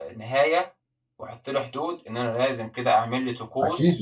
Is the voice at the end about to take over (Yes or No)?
Yes